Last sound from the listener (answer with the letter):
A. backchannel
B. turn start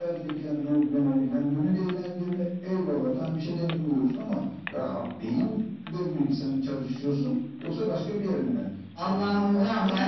B